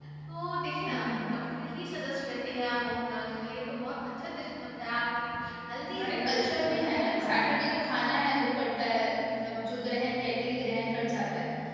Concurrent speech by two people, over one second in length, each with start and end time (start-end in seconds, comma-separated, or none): 5.9-7.2